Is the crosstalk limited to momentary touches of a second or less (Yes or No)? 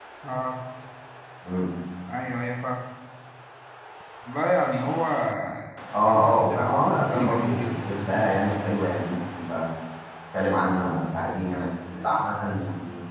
No